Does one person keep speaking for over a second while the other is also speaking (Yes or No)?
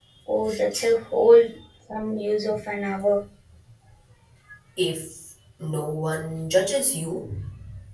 No